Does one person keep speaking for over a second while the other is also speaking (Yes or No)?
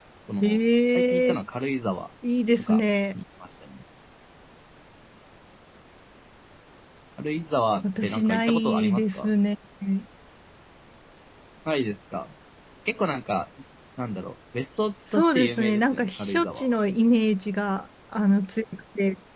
Yes